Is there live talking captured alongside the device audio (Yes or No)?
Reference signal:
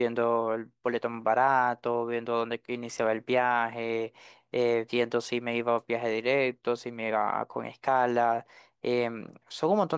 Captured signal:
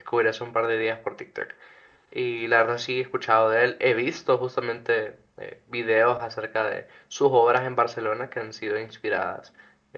Yes